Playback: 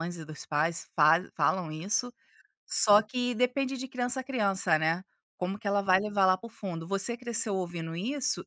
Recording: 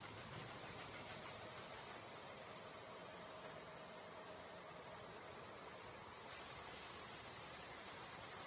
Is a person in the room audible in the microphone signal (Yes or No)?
No